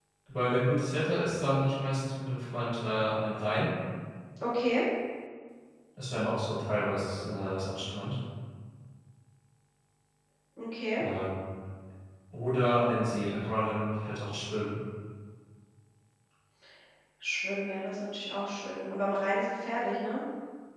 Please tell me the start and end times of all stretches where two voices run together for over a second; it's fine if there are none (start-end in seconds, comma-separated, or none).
none